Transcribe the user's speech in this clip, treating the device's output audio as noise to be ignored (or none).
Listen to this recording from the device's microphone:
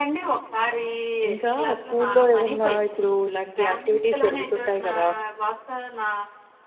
ఇంకా స్కూలులో ఏమన్నా ఇప్పుడు ఇలాంటి యాక్టివిటీస్ జరుగుతుంటాయి గదా!